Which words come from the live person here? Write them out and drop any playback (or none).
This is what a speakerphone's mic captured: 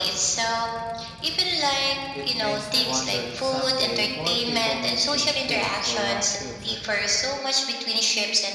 It makes me wonder if someday more people will choose ships for long trips ad-